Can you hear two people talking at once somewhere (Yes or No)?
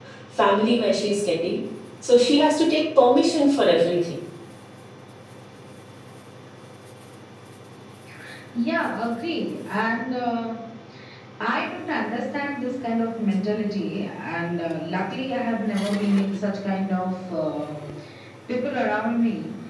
No